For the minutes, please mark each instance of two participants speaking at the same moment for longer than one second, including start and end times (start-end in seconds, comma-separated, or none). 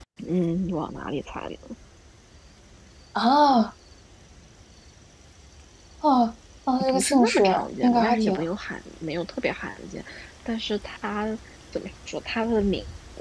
6.8-8.4